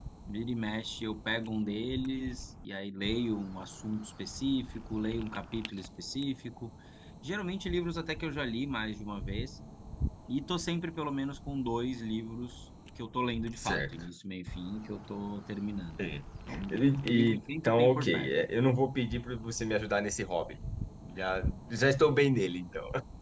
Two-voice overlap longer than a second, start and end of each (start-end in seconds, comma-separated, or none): 16.7-18.3